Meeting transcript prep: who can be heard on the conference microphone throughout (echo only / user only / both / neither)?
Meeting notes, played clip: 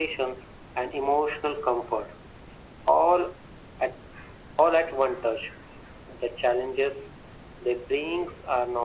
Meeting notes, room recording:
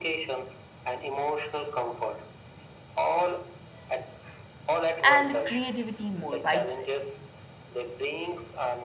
both